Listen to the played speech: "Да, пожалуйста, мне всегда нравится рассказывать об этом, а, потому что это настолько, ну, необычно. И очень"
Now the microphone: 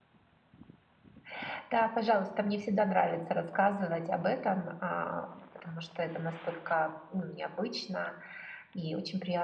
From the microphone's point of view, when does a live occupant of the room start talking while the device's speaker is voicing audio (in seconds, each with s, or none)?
none